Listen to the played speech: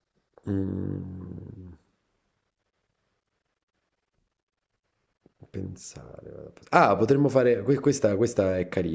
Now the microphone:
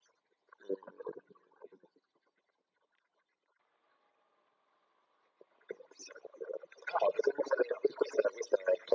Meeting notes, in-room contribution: none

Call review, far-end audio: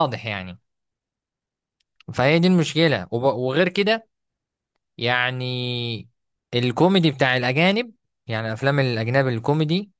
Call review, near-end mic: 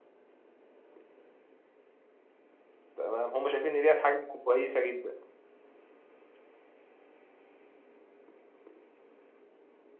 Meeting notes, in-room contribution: present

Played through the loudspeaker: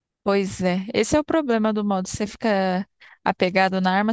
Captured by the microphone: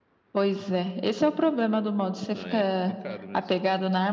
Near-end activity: present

